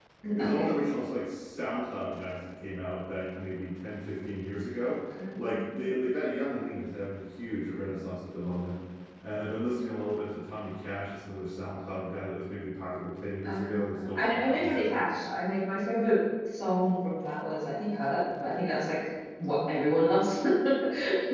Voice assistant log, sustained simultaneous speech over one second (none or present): present